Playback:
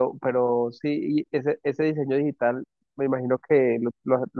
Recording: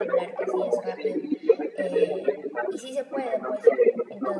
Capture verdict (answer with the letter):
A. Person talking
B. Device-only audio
A